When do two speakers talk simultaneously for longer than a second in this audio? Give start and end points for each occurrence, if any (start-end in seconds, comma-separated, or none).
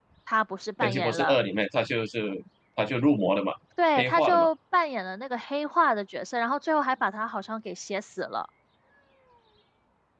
none